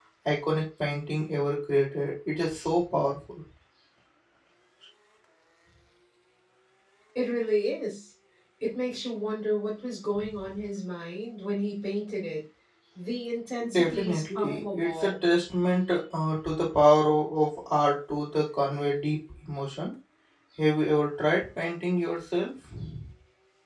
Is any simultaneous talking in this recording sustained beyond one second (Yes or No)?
Yes